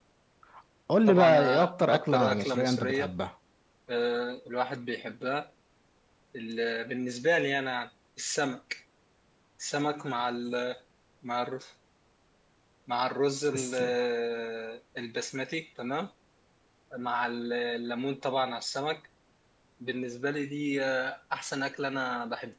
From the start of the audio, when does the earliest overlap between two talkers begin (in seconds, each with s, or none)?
1.1 s